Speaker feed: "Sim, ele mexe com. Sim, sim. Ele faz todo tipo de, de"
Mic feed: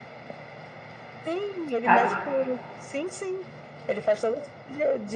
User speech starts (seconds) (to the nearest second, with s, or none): 2 s